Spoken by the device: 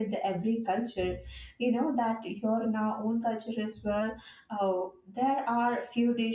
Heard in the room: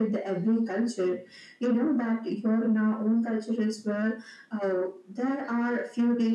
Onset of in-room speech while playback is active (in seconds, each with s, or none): none